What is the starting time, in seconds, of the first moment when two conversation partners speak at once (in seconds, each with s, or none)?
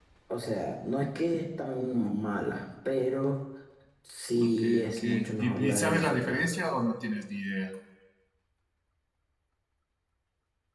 4.4 s